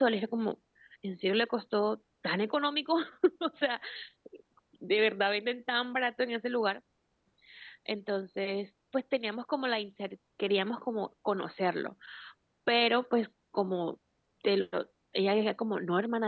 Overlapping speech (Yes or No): No